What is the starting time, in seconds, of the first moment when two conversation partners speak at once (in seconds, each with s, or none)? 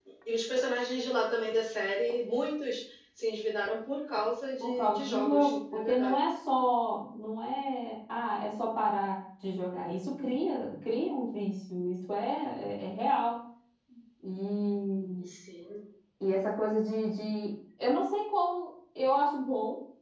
4.6 s